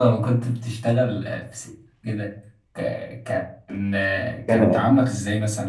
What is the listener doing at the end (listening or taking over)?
listening